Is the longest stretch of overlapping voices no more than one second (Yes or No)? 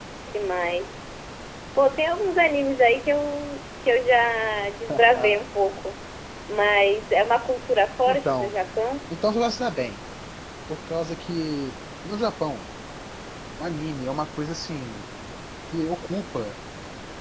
Yes